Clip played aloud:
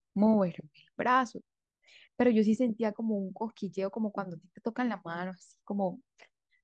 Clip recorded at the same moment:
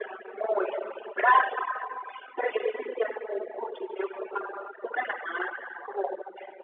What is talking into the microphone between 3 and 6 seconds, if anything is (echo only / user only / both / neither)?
echo only